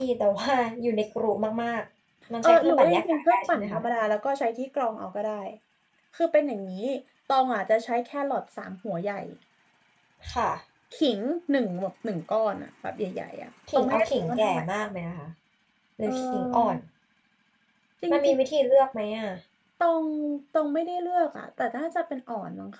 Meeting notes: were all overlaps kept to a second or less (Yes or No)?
No